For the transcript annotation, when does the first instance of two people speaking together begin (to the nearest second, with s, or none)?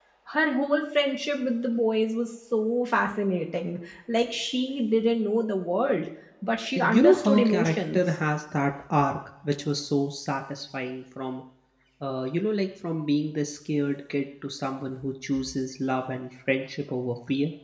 7 s